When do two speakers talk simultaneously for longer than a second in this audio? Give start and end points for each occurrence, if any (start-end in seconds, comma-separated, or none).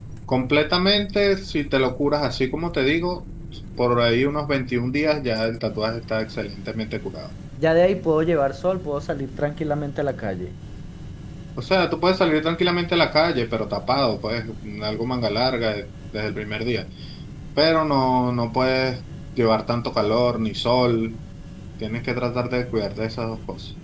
none